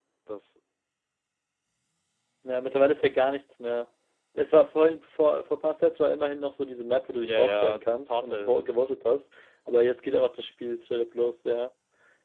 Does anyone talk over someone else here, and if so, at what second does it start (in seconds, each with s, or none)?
7.2 s